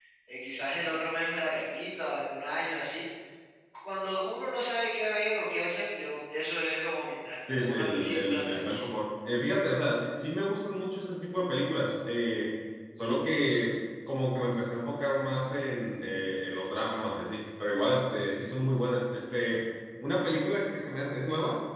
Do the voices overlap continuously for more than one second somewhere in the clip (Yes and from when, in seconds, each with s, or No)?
Yes, from 7.5 s